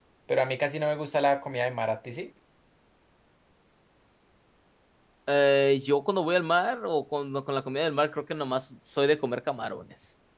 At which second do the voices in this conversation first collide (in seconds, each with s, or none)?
none